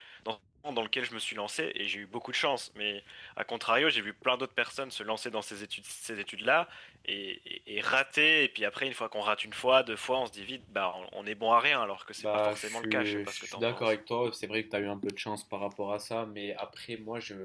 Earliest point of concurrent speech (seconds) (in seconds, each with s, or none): 12.2 s